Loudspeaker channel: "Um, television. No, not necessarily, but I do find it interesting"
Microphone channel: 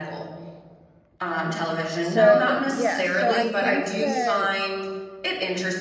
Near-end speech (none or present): present